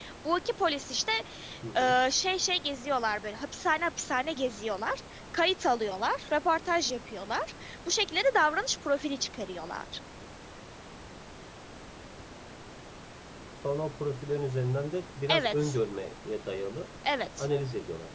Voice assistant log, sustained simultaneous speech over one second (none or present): none